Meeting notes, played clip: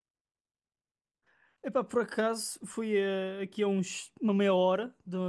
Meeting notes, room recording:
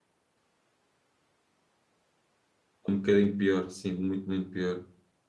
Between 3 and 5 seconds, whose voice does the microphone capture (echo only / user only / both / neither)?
user only